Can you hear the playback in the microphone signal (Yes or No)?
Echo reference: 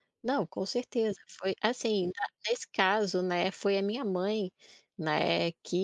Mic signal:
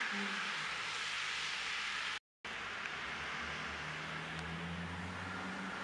No